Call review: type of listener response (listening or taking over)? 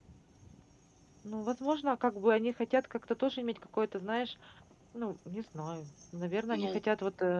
listening